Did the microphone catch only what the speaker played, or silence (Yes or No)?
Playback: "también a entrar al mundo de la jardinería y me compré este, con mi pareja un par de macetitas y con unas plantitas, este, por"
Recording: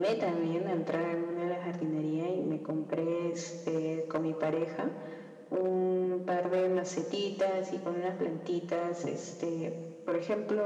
Yes